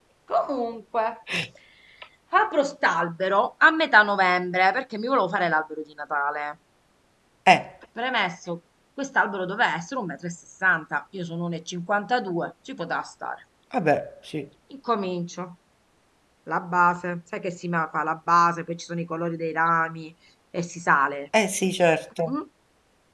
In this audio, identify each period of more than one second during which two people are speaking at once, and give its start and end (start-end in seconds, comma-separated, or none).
none